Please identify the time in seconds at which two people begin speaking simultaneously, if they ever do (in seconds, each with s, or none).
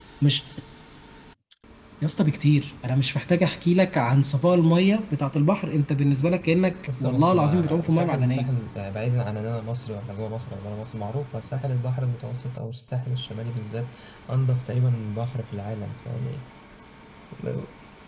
6.9 s